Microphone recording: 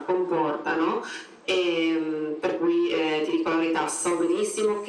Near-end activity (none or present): none